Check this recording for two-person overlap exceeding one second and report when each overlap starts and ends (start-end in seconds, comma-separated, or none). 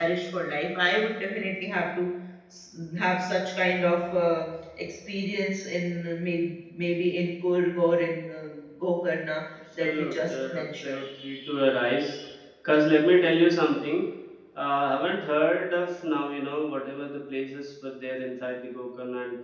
9.8-11.0